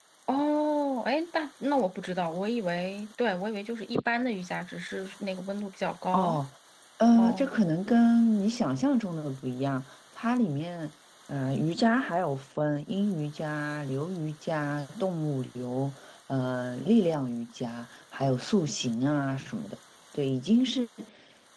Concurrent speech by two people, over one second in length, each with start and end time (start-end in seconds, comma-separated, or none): none